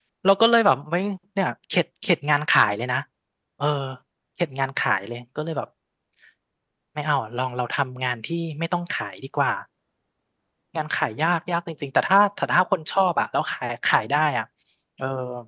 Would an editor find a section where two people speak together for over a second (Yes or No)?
No